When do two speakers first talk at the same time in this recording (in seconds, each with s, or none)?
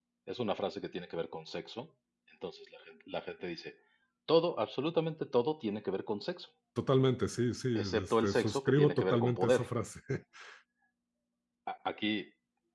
7.8 s